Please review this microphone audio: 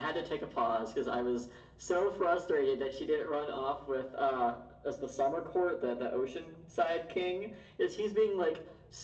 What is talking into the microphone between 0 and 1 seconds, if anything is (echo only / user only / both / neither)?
echo only